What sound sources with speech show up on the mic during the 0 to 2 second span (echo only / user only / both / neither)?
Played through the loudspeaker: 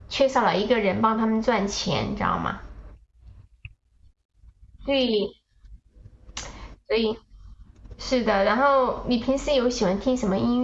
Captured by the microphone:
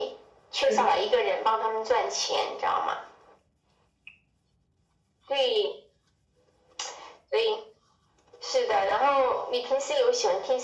both